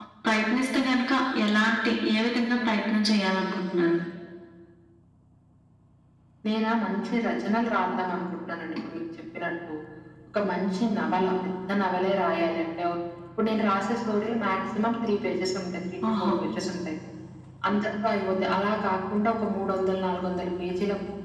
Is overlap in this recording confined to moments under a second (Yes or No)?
Yes